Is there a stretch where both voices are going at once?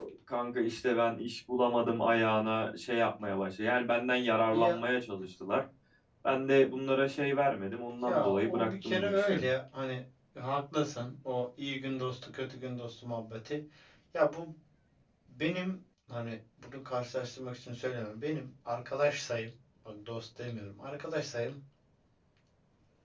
Yes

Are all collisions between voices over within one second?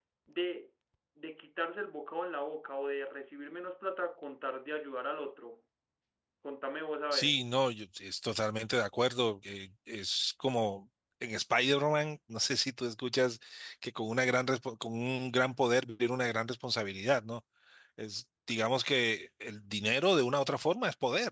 Yes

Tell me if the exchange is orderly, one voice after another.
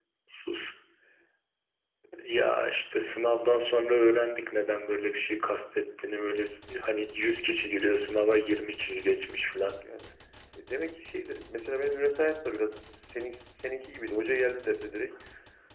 Yes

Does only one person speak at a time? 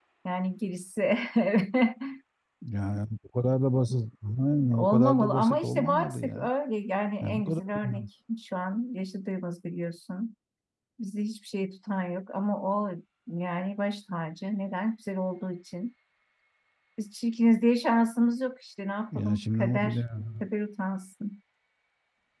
No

